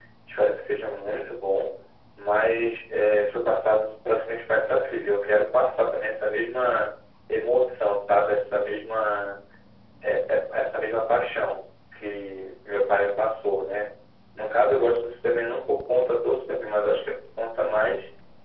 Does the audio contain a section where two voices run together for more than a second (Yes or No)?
No